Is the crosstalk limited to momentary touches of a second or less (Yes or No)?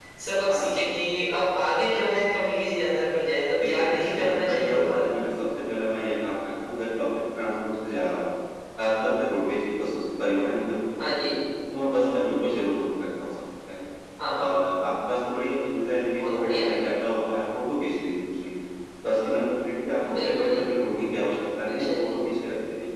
No